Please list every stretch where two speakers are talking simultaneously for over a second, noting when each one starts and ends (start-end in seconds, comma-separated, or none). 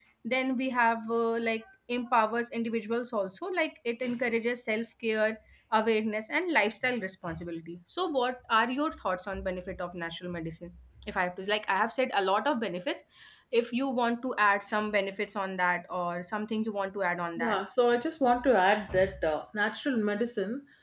none